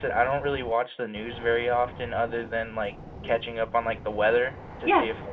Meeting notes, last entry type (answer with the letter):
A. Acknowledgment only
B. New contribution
A